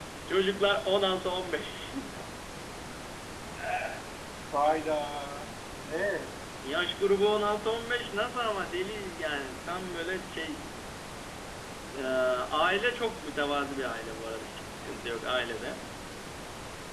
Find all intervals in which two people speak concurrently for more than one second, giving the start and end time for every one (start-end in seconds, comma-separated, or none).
none